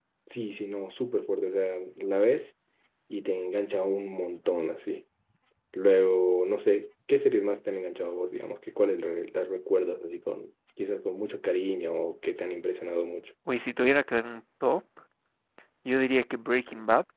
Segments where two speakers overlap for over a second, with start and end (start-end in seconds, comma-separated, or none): none